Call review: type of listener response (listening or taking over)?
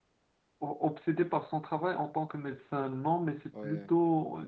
listening